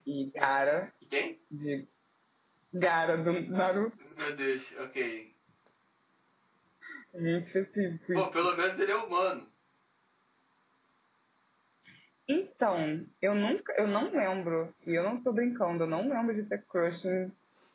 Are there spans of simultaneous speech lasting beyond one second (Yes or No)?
No